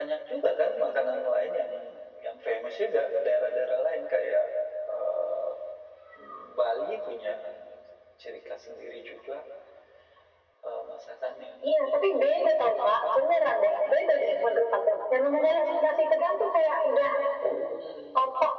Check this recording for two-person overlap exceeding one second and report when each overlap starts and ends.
none

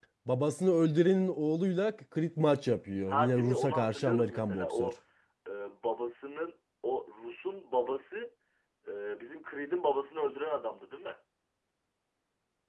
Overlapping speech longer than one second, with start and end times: 3.1-4.9

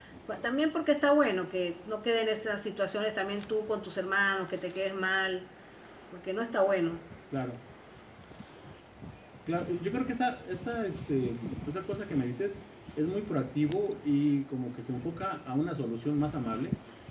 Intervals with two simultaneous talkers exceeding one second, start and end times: none

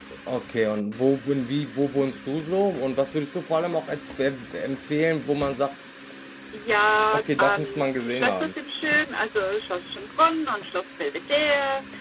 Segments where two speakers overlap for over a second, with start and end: 7.1-8.5

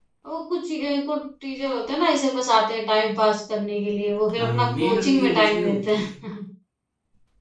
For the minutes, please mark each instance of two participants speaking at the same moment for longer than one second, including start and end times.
4.4-6.1

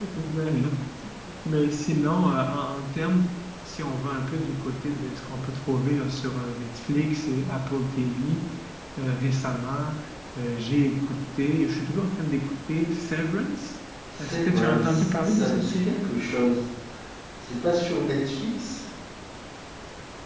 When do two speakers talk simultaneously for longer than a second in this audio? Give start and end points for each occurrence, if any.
14.2-16.0

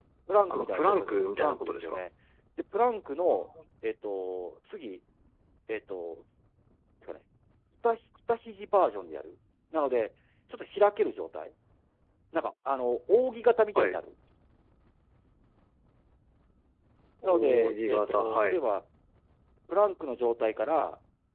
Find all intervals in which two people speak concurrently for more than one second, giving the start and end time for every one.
0.5-2.0, 17.2-18.6

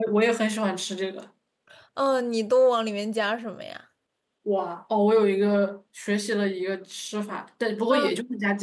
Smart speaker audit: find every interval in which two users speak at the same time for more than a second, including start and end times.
none

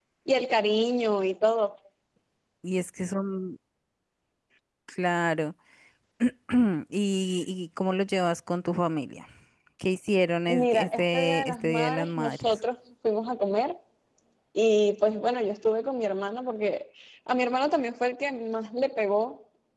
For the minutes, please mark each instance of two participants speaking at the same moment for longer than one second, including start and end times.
10.5-12.6

